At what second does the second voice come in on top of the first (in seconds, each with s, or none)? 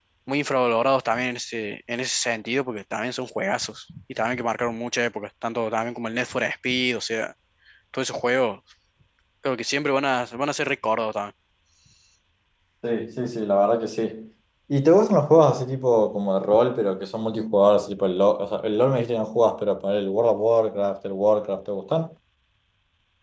none